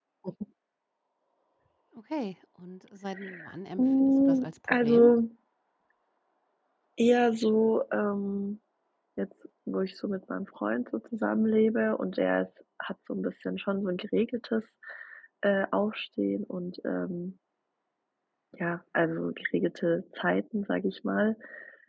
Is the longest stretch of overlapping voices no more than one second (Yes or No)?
No